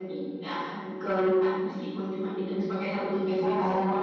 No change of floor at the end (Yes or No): No